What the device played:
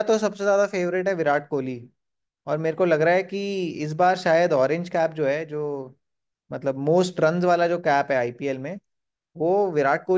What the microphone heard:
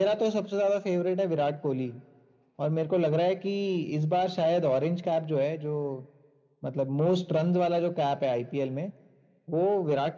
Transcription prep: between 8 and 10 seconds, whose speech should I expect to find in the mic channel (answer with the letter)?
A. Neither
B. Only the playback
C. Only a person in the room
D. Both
B